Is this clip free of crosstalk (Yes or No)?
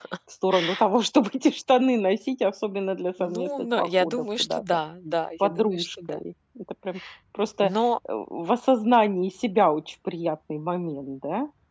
No